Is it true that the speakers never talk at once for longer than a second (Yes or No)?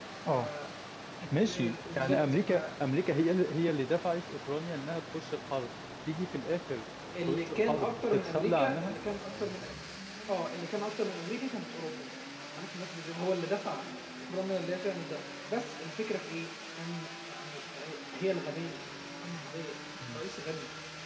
No